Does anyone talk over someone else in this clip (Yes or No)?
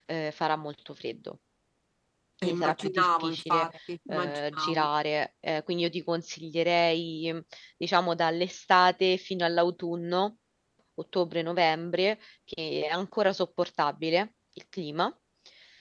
Yes